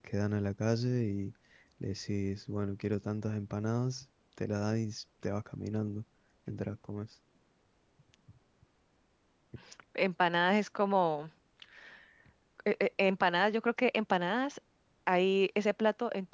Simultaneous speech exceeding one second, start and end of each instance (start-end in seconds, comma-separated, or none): none